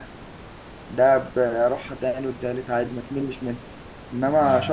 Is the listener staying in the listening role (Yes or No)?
Yes